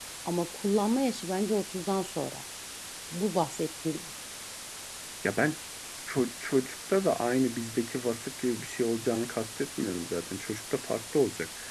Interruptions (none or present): none